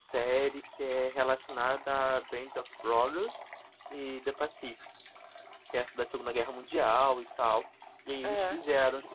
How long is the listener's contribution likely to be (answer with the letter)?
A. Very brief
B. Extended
A